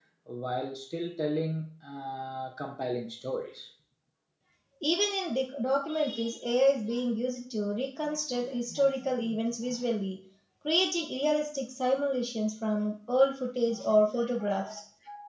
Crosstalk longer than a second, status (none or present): none